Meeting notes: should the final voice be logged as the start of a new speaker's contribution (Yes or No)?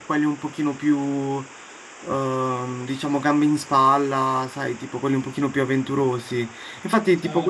No